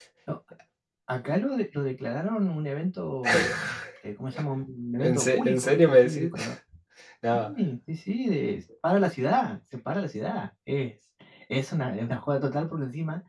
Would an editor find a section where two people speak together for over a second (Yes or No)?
Yes